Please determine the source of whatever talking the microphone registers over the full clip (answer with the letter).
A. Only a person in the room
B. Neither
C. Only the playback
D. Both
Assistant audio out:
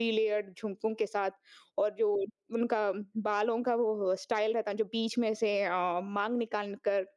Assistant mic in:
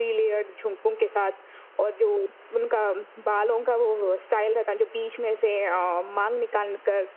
C